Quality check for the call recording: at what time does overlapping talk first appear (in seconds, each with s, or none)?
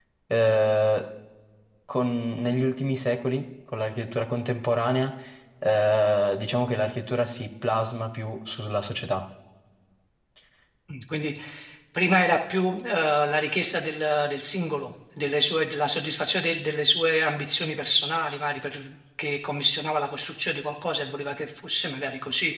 none